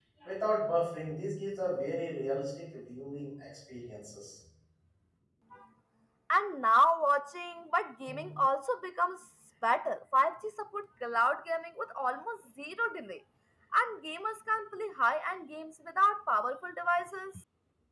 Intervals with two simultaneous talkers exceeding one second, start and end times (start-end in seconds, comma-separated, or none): none